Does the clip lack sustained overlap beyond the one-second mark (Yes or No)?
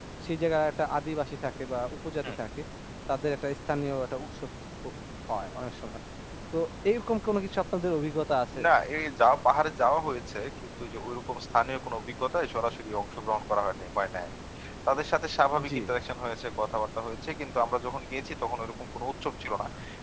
Yes